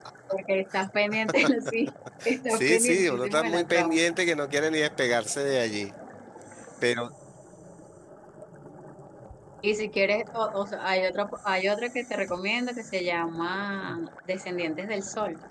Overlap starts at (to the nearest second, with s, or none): 2 s